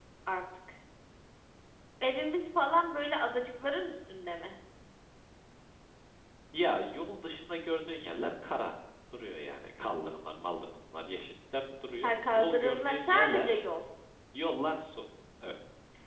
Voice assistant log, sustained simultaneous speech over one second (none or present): present